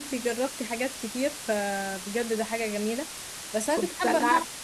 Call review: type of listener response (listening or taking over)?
listening